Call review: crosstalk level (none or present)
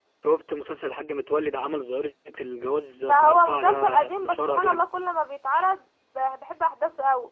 present